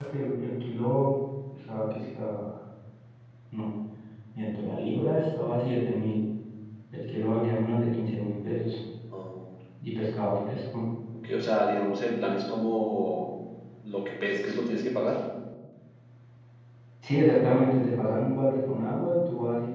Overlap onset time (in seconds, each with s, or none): none